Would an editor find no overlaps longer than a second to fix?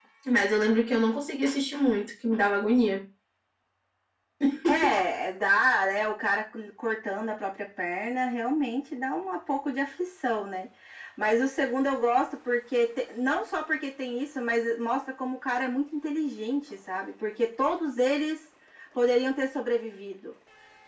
Yes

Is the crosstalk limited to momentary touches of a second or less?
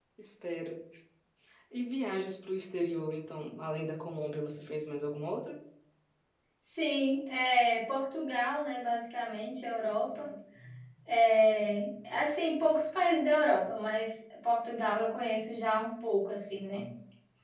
Yes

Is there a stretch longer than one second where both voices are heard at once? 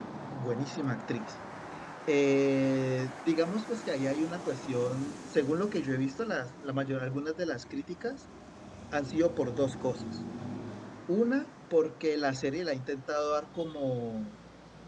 No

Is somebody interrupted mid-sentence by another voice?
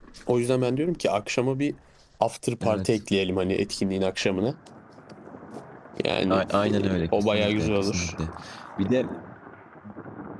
Yes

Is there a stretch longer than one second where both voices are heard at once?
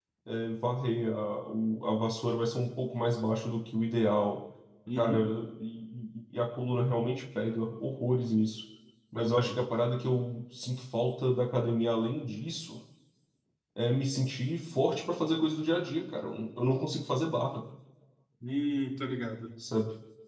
No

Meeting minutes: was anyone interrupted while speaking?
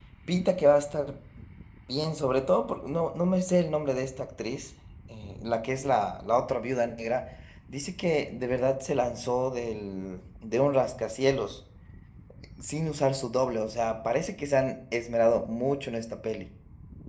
No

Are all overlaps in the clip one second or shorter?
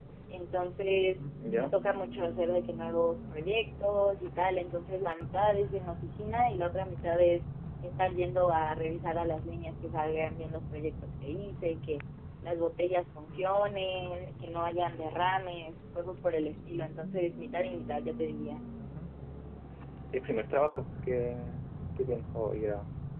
Yes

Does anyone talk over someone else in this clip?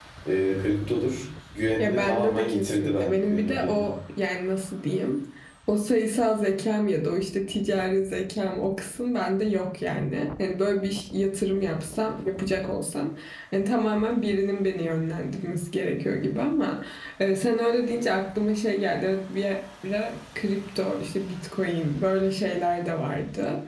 Yes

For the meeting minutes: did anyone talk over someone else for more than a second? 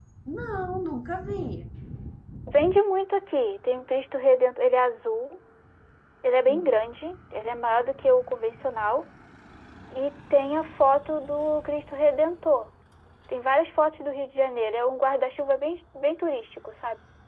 No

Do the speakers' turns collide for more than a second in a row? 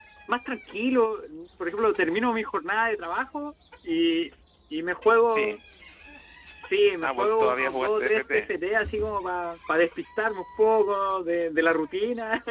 Yes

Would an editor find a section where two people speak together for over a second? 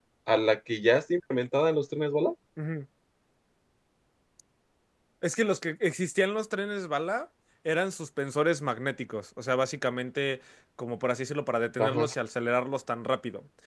No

